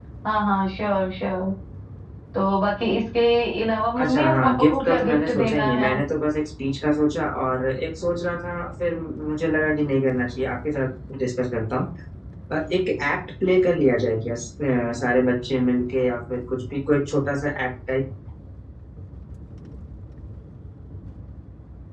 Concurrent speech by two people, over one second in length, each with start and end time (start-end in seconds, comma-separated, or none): 4.0-5.9